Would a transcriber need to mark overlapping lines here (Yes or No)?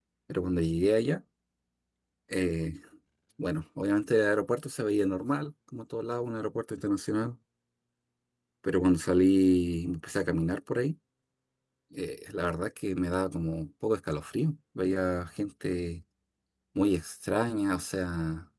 No